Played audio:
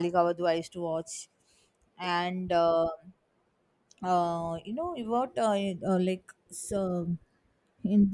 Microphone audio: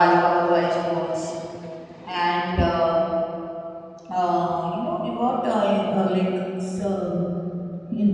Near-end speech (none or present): present